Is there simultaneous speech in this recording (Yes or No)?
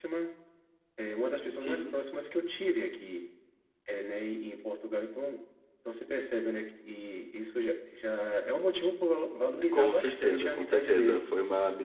Yes